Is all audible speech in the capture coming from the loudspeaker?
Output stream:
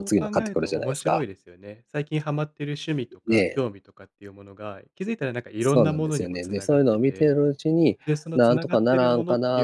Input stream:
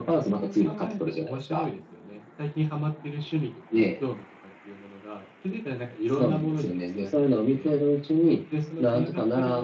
Yes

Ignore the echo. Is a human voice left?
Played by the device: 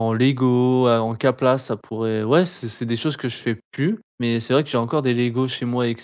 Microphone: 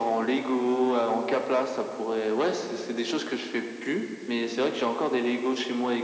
No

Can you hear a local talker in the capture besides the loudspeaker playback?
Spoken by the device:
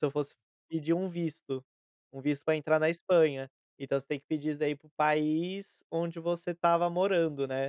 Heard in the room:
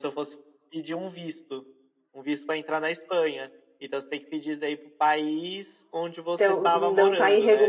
Yes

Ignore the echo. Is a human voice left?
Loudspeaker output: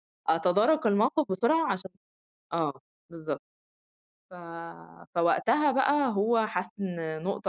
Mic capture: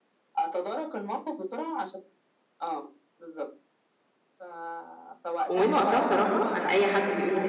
Yes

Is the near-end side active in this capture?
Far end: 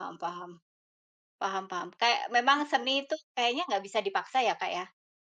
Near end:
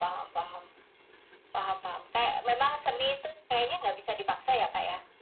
No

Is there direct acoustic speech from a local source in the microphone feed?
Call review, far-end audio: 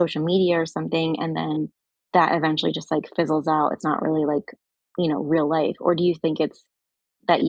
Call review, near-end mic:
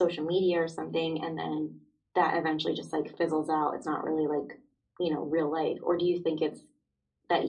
No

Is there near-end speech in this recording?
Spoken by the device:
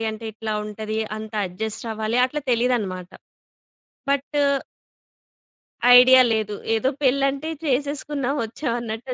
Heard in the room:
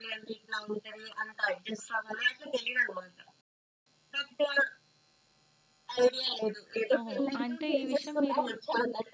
Yes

